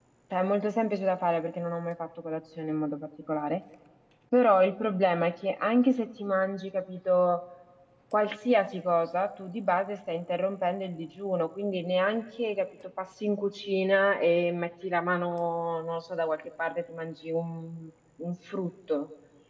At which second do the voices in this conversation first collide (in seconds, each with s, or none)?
none